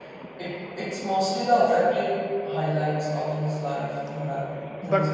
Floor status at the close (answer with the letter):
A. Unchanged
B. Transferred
B